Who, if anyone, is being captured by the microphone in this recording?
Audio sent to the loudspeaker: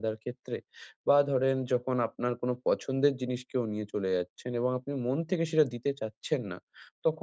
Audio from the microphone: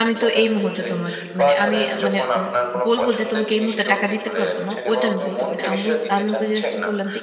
both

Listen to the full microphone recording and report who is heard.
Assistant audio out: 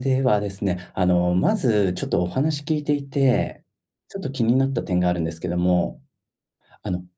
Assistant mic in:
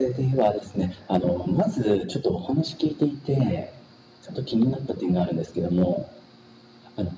echo only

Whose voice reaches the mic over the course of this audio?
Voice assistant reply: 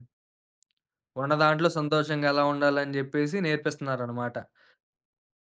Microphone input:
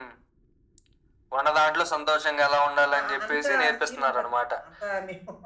both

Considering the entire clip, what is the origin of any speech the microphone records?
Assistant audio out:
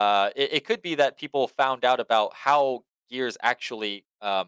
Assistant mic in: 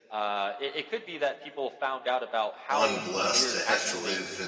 both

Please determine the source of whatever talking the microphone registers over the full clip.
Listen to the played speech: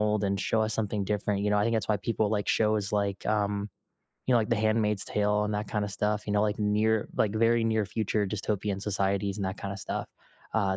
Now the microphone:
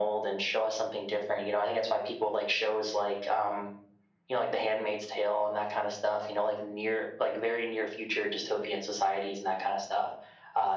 echo only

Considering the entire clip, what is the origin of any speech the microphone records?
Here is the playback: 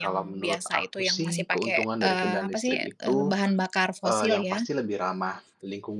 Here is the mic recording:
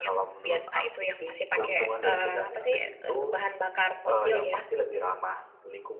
both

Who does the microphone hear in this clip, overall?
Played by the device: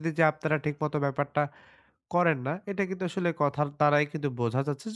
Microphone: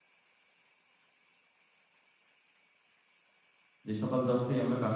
user only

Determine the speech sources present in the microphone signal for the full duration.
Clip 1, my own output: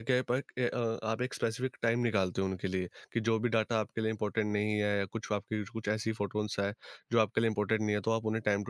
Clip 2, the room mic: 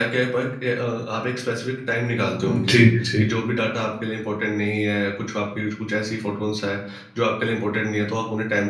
both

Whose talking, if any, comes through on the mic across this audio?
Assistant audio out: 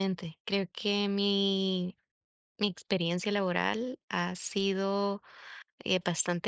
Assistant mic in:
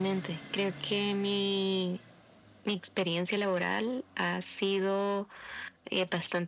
echo only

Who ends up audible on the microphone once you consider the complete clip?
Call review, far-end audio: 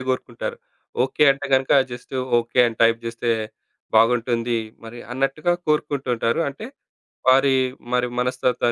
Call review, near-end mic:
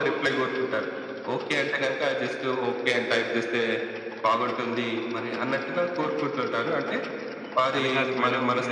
both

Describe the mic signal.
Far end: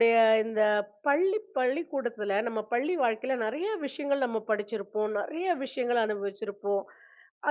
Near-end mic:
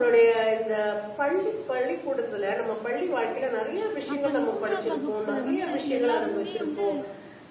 both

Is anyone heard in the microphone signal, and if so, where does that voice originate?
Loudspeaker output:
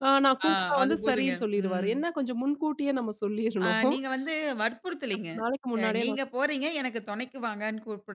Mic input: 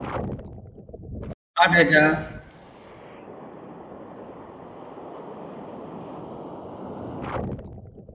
user only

